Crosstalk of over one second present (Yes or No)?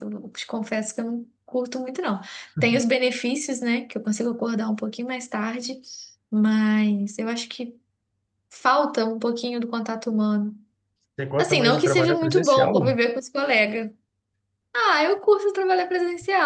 Yes